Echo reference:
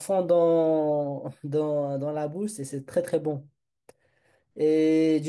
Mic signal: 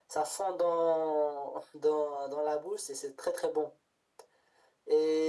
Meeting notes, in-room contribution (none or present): none